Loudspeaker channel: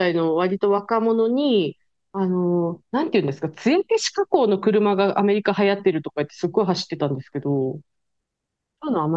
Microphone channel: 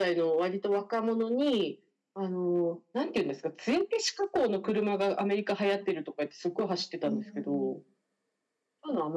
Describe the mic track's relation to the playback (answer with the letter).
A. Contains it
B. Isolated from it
A